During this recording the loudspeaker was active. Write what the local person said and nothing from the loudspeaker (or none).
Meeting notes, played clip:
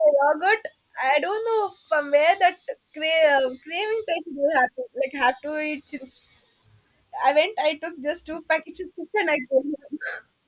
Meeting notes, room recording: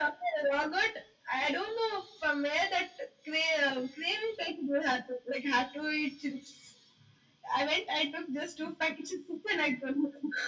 none